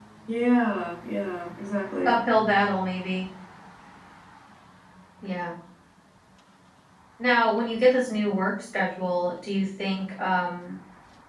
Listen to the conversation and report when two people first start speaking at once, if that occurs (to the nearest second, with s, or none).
none